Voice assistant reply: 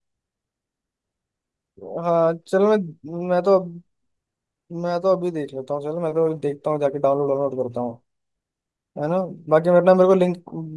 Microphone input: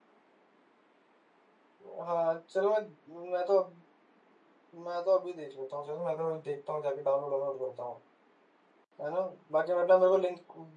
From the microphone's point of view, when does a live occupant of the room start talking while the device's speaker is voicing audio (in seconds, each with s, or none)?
none